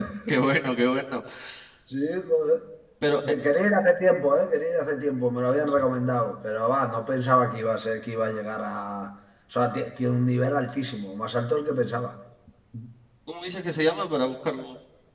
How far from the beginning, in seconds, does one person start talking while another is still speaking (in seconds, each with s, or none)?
none